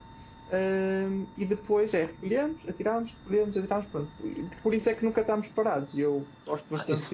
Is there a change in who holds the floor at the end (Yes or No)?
Yes